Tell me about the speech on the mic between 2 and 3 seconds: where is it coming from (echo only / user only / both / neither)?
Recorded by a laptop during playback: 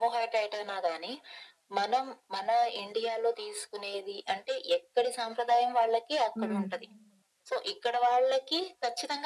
echo only